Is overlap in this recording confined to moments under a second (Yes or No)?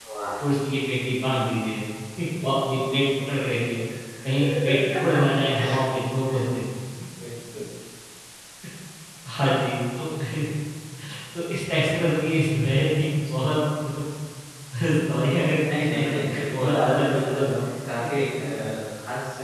No